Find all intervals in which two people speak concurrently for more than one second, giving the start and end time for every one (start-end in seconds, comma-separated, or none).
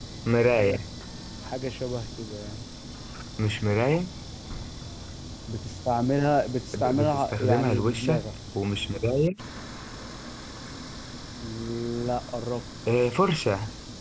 6.7-8.2